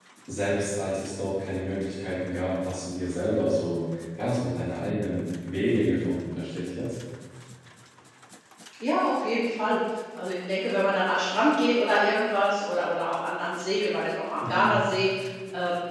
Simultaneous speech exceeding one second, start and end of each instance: none

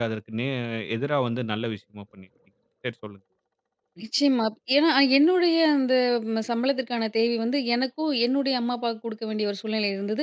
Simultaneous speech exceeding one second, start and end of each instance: none

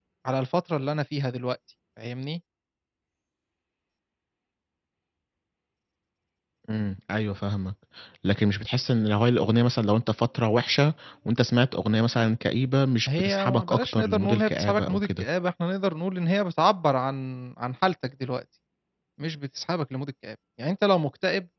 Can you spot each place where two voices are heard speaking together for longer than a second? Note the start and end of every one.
13.1-15.2

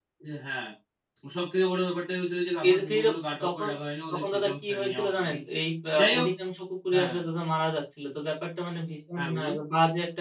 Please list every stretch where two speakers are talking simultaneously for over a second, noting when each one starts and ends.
4.1-5.4

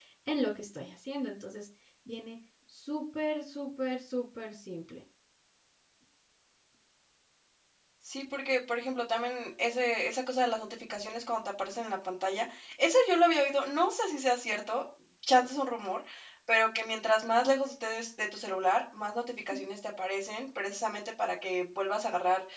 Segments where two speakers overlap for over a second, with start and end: none

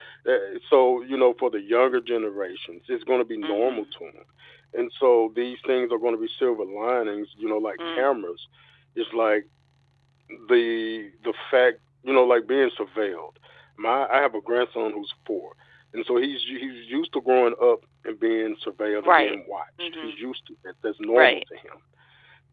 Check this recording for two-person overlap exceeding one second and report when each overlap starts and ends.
none

